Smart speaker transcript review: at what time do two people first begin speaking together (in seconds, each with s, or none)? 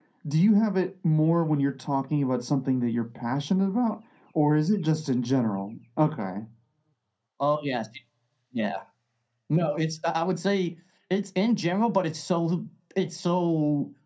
none